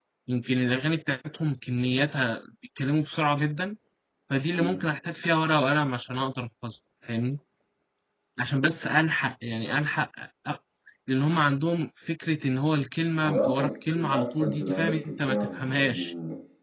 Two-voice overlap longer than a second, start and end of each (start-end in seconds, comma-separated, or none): 13.2-16.1